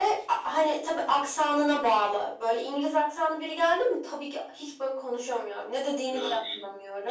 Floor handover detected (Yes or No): Yes